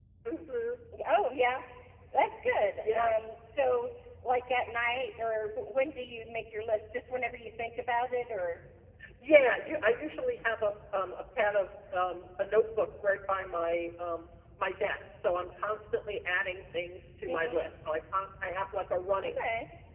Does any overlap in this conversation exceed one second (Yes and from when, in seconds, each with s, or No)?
No